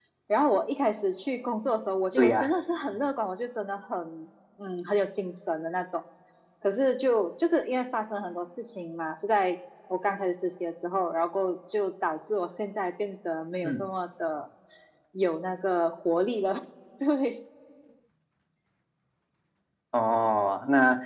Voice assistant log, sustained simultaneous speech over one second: none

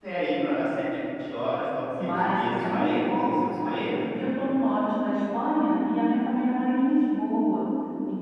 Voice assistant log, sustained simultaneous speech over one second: present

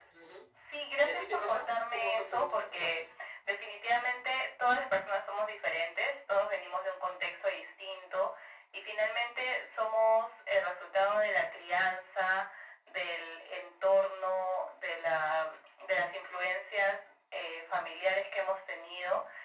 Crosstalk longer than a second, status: present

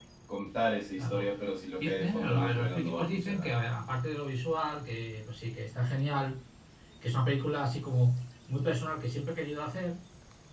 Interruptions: present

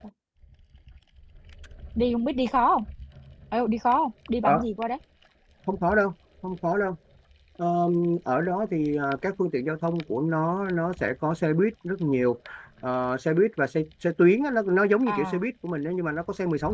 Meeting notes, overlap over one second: none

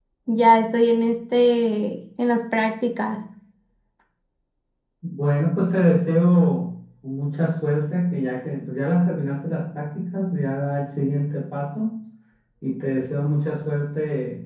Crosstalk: none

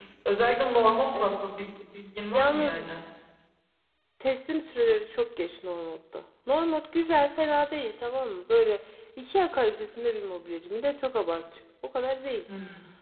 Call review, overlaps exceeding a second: none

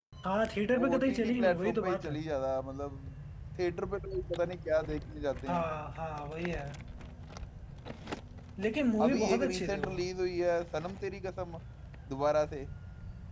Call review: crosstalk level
present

